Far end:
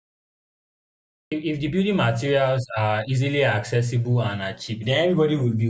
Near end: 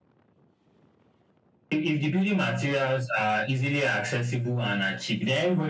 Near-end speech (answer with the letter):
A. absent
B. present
A